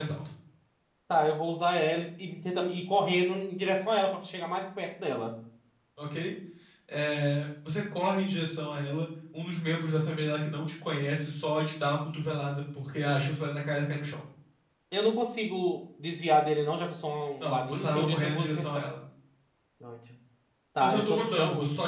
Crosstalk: present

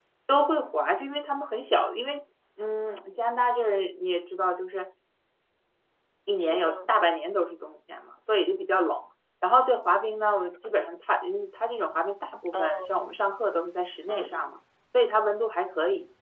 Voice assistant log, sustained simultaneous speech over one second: none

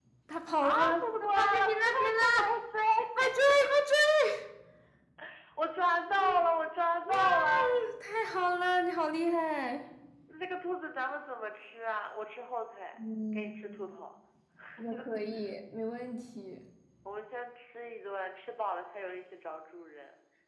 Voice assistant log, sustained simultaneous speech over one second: present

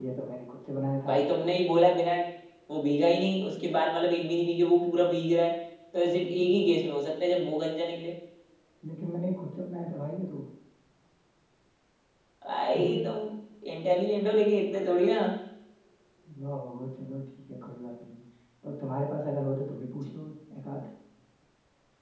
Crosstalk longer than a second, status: none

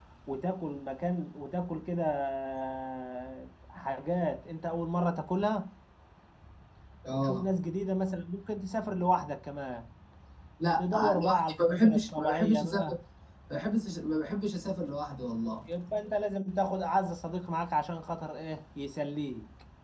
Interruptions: present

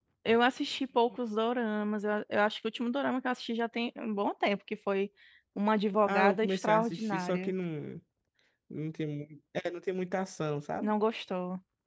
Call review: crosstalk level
present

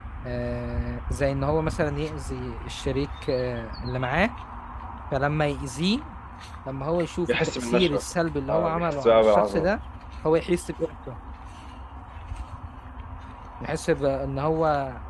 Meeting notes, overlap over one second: present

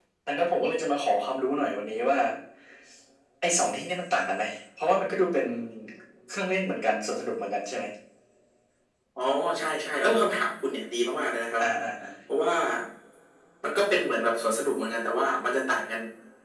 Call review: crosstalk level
none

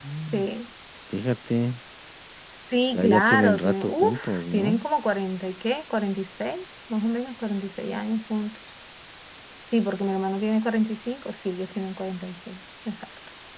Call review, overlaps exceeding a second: present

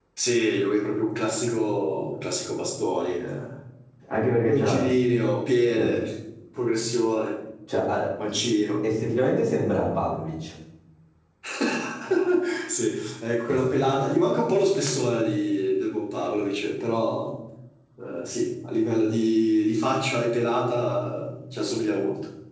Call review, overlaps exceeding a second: none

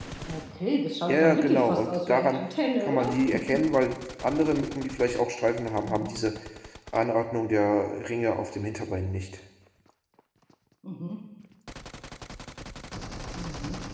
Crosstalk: present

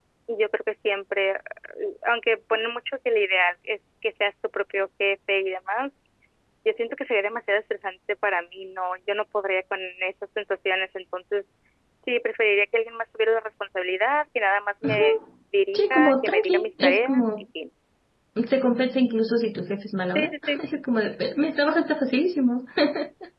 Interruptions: present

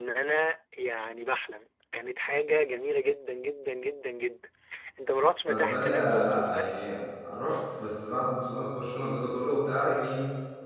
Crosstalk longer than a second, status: present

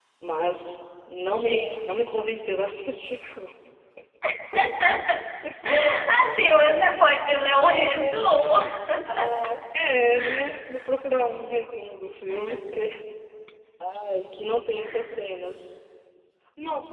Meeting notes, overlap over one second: none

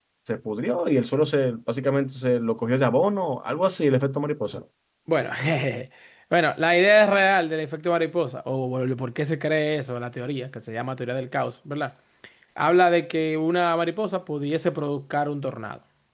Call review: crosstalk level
none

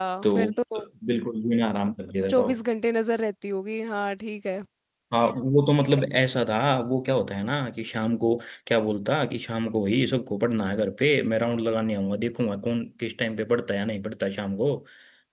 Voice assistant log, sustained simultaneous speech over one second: none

